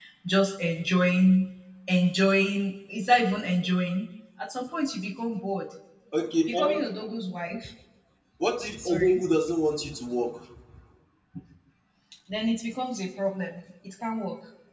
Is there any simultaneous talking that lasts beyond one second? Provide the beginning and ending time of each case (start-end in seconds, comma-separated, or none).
none